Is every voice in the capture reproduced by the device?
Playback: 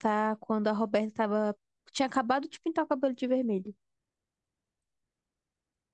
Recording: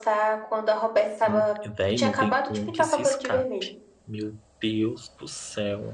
No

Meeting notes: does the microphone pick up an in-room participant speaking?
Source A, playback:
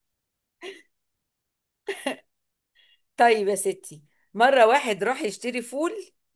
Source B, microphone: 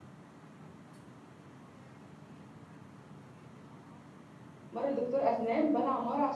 Yes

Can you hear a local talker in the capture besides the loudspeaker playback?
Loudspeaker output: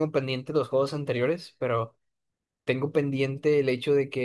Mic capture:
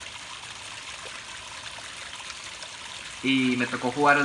Yes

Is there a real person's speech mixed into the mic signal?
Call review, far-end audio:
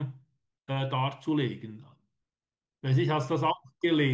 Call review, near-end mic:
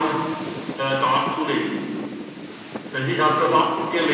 No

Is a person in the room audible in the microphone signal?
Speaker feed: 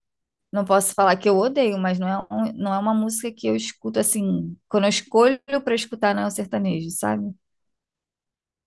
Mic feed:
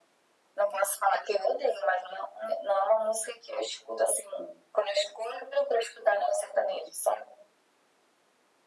No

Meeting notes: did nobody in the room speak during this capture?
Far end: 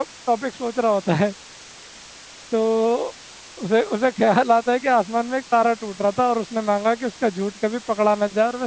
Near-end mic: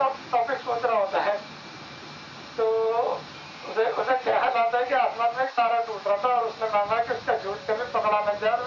Yes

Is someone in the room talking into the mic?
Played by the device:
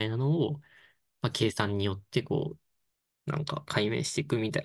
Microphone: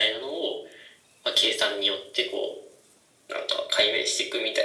No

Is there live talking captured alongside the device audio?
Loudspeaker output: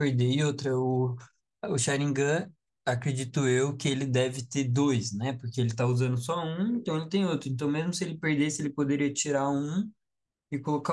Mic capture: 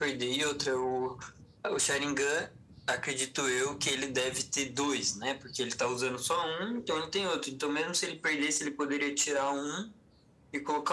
No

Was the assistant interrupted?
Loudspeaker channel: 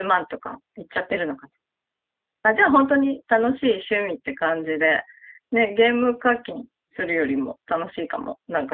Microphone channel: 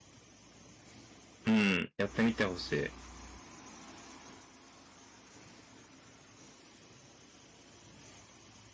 Yes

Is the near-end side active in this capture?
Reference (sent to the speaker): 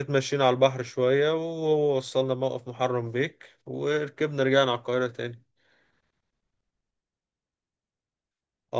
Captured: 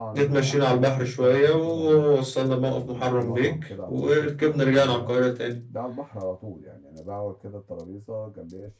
Yes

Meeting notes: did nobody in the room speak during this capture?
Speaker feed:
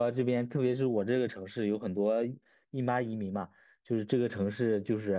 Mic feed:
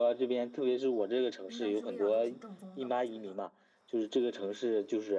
No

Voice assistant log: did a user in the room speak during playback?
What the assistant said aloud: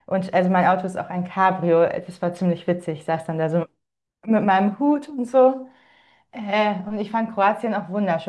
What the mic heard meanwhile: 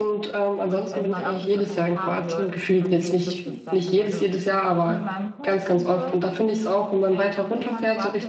Yes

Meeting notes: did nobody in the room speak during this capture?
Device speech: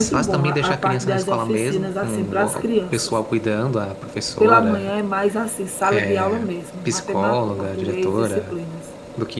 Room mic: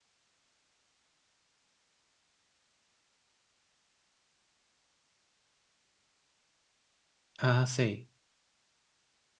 No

